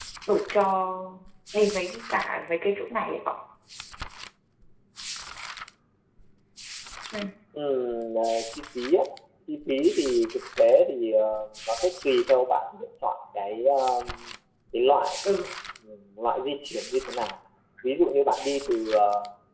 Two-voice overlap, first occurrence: none

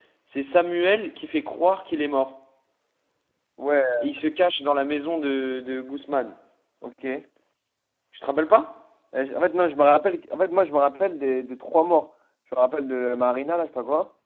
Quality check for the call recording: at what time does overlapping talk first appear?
none

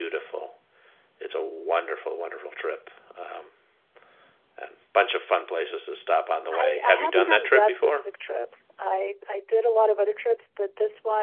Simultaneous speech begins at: 6.5 s

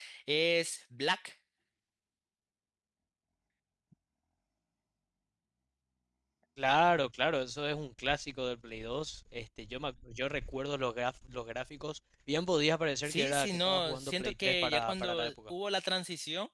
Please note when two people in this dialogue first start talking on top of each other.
13.1 s

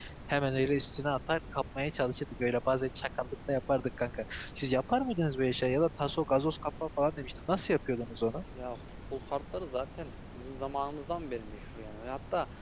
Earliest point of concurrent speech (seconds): none

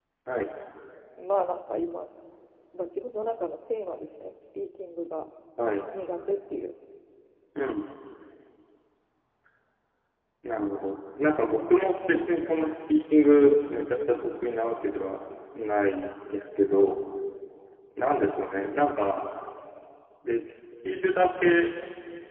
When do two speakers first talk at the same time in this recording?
none

